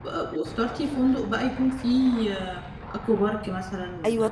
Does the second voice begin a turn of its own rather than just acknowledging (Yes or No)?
Yes